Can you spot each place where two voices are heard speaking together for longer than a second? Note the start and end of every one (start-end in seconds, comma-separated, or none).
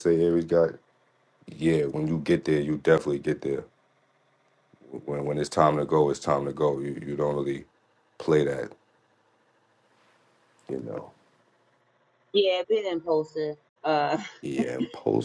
none